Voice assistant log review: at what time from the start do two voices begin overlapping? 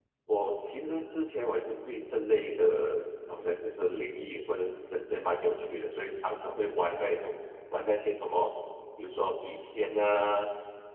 none

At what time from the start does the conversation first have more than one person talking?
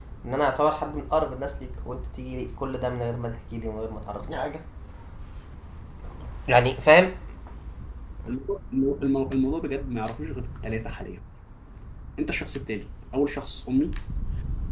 none

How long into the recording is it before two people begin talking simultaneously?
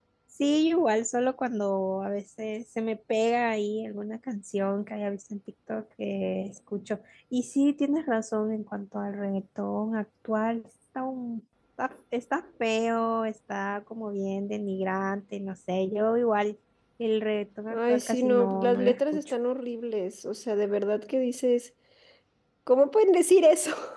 17.7 s

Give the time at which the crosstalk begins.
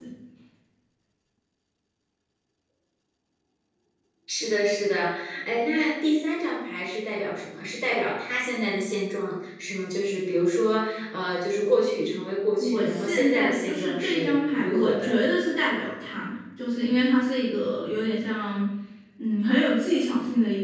12.6 s

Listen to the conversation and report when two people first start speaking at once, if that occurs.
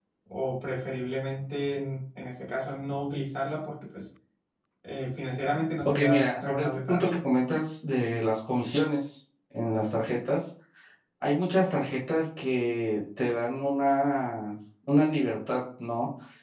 5.8 s

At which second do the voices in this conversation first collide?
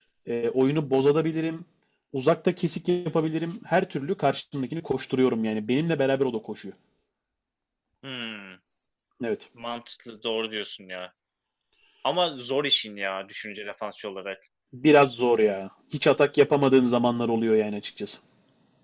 none

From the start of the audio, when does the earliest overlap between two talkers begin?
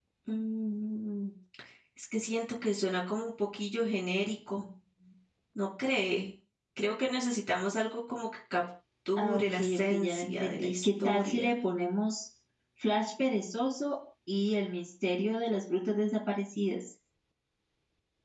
9.2 s

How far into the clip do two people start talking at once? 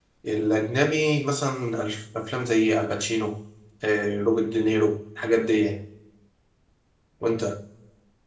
none

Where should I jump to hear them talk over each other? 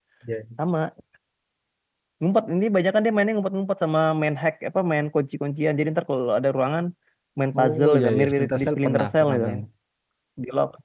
7.6 s

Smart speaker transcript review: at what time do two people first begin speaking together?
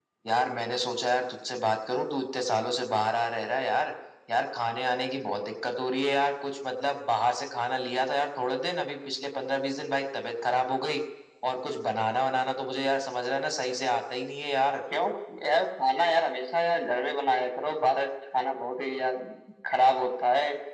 none

